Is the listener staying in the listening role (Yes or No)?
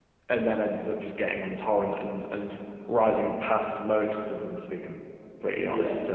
No